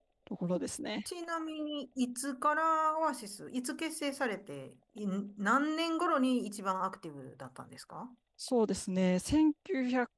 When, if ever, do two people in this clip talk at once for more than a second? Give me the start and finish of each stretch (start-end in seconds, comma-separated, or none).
none